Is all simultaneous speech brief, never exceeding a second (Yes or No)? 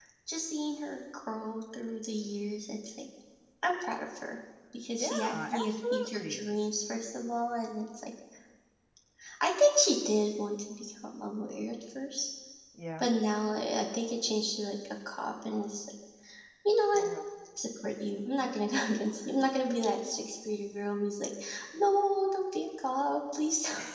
No